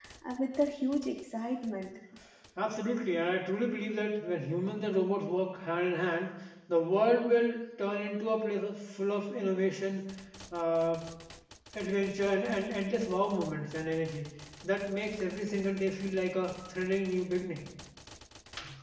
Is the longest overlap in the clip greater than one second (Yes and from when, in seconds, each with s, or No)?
No